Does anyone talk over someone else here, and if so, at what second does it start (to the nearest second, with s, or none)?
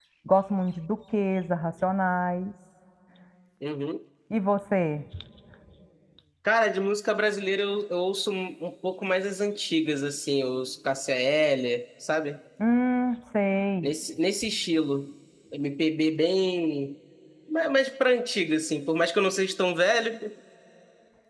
none